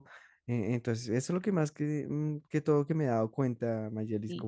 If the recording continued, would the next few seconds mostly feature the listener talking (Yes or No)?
Yes